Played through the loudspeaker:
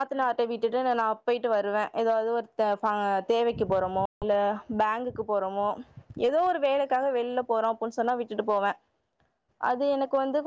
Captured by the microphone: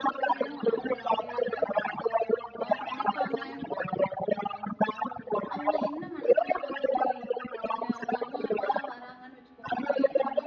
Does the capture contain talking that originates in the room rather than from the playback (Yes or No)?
Yes